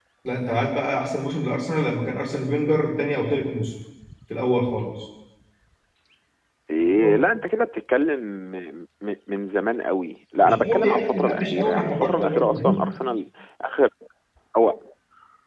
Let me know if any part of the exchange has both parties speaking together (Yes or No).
Yes